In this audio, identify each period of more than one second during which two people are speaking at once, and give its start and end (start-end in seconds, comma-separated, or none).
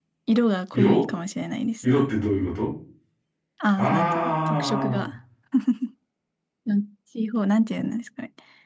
3.8-5.1